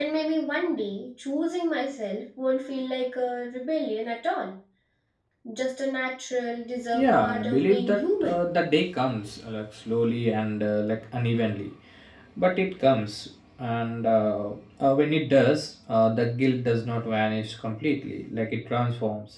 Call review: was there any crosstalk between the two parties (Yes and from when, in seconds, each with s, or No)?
Yes, from 6.9 s